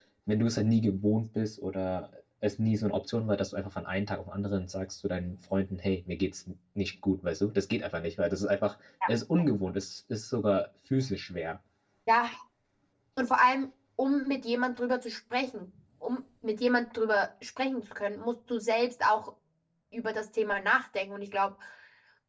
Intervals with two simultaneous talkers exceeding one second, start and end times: none

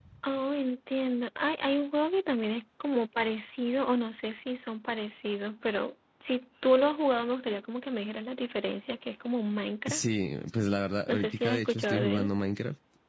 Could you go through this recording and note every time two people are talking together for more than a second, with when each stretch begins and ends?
11.1-12.3

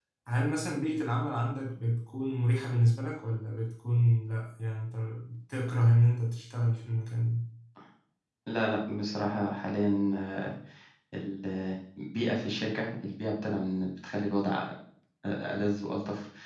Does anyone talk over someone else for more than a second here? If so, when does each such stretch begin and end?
none

